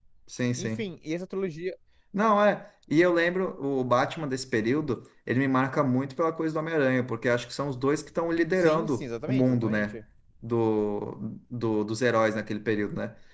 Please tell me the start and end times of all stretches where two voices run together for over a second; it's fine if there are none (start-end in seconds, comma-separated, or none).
8.6-10.0